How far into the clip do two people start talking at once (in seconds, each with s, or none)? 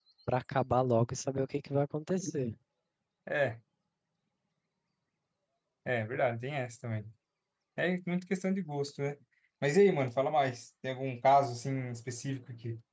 none